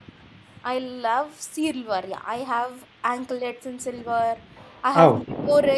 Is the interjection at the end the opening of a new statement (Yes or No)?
No